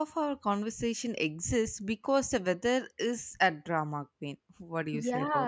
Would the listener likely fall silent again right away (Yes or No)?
No